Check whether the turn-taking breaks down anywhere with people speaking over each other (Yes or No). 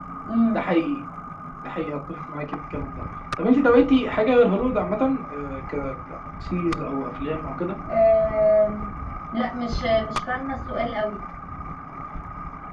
No